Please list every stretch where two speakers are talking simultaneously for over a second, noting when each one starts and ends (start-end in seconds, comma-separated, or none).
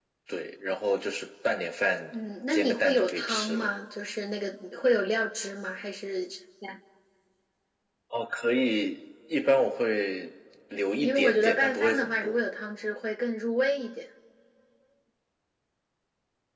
2.5-3.7, 11.0-12.4